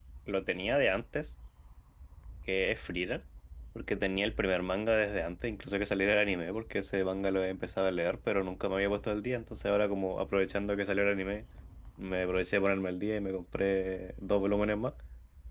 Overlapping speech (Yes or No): No